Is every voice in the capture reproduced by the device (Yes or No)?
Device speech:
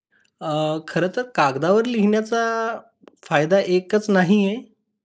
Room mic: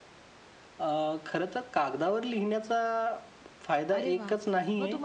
No